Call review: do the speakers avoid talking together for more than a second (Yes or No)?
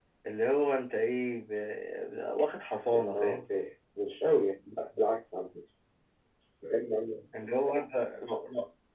Yes